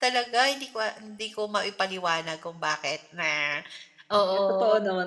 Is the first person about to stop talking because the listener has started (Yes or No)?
Yes